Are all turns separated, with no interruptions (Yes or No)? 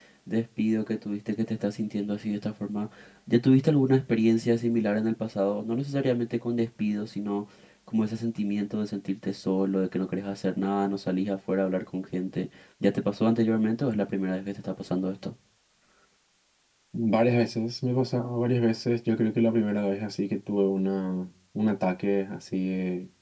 Yes